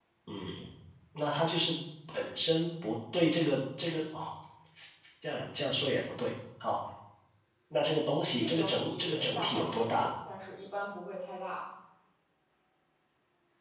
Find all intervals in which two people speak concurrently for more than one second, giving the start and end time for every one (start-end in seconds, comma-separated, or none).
8.4-10.1